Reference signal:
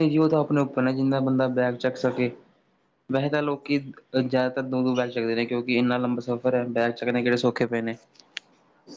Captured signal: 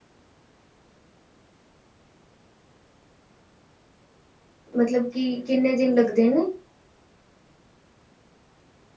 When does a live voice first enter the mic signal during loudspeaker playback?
4.8 s

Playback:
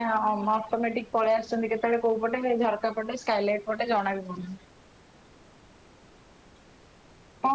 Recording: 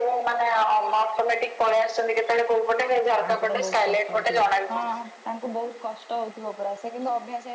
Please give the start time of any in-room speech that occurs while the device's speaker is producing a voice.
3.2 s

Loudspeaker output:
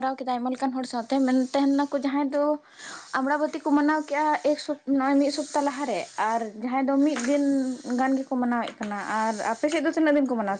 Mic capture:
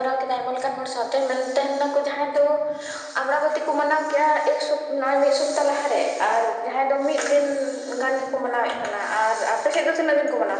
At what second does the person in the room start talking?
none

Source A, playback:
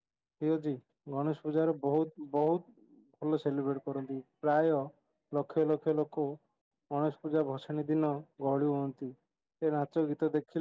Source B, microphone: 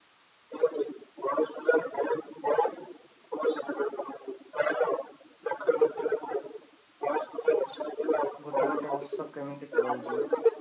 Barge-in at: 8.5 s

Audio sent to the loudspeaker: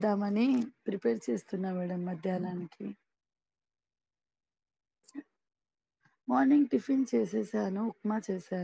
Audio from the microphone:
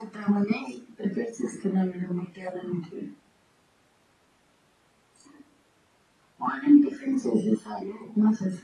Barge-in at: none

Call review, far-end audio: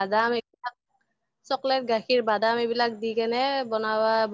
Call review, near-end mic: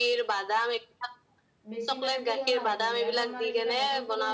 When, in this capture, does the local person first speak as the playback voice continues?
1.7 s

